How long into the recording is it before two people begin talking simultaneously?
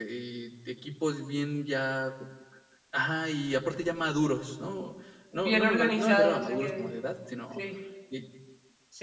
5 s

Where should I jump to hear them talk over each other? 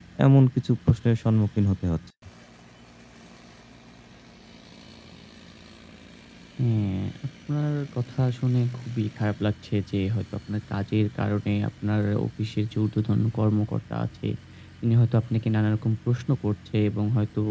none

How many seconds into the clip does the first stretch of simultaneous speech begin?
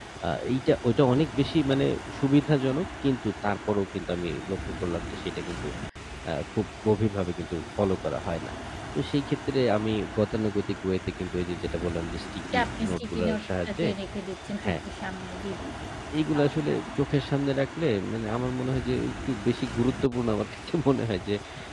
13 s

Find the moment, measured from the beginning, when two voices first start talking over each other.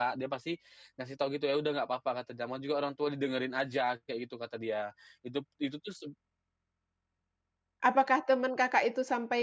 none

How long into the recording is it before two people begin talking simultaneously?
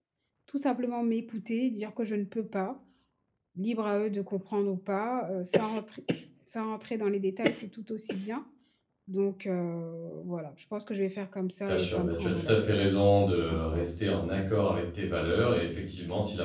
12 s

